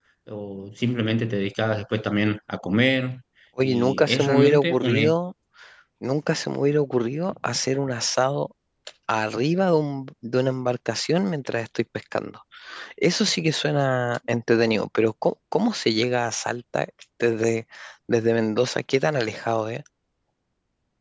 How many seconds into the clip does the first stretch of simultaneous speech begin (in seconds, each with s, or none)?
3.6 s